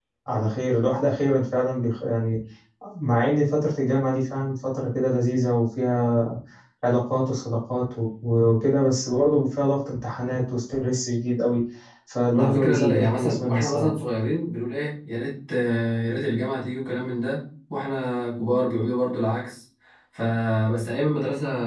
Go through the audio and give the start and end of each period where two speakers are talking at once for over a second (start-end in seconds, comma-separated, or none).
12.4-13.9